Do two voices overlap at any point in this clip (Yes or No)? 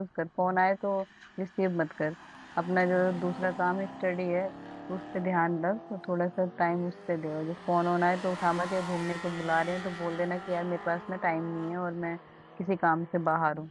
No